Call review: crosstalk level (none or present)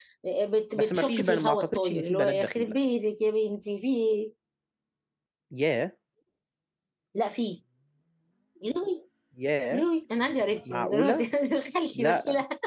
present